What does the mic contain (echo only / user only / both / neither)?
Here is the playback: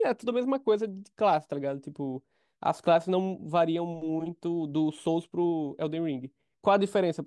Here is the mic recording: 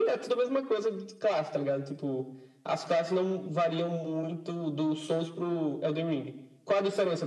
echo only